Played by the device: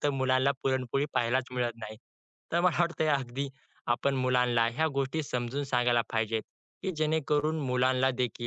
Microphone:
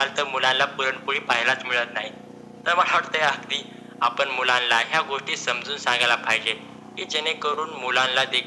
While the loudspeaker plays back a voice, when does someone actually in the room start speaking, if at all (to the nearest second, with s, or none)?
none